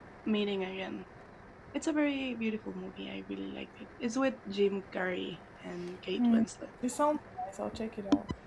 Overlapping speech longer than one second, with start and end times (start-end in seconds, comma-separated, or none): none